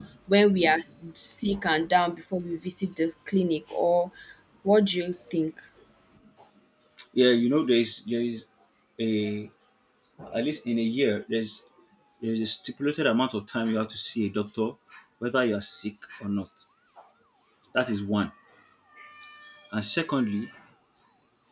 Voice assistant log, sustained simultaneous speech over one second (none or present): none